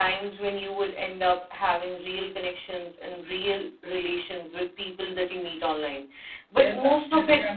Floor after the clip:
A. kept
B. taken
B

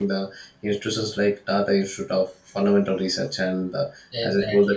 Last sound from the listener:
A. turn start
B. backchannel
B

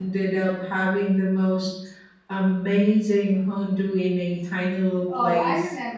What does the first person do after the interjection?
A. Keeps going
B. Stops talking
B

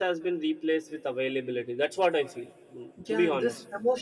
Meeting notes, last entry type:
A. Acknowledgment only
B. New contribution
B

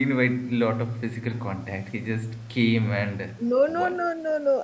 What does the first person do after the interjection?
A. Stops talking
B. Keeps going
A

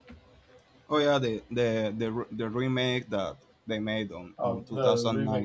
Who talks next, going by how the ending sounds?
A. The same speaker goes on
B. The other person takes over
B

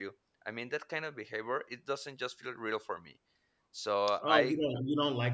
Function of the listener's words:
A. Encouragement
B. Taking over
B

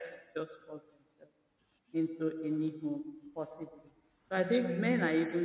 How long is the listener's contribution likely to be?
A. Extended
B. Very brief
B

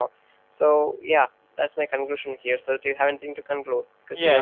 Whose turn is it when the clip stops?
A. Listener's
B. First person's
A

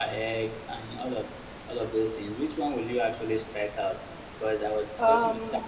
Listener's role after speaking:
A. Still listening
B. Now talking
A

